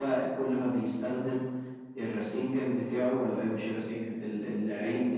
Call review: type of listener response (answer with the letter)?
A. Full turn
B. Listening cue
B